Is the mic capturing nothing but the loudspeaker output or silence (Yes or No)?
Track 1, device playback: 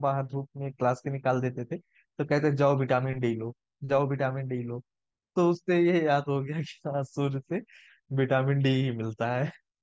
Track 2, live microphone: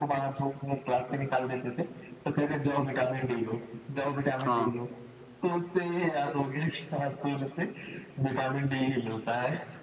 No